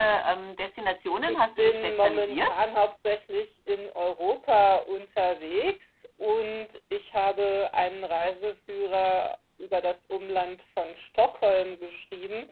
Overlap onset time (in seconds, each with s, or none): 1.3 s